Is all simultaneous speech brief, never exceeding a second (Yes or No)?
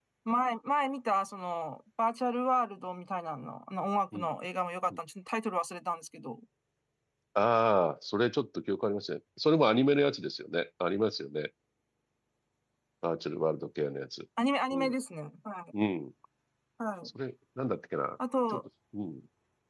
Yes